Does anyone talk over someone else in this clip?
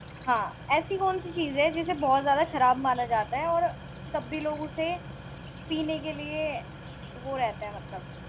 No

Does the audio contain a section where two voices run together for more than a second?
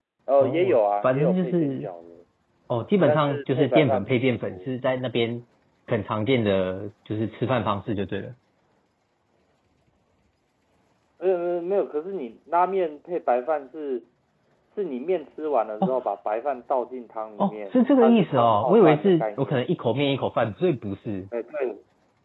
Yes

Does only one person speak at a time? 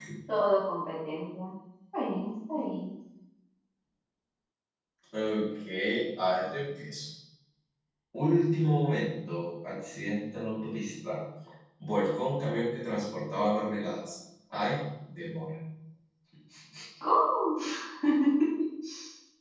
Yes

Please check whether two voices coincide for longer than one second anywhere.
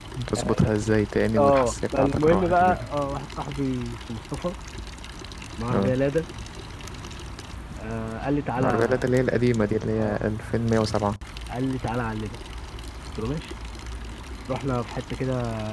Yes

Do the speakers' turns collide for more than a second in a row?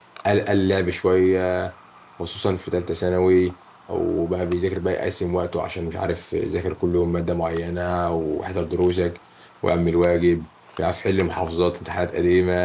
No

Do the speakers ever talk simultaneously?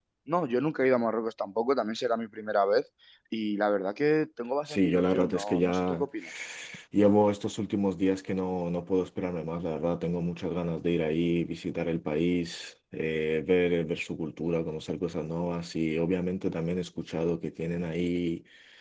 Yes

